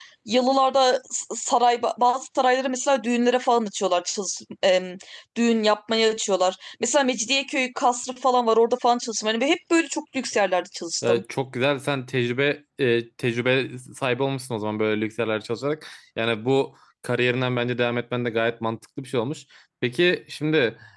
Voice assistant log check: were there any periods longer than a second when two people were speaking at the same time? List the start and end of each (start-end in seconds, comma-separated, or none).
none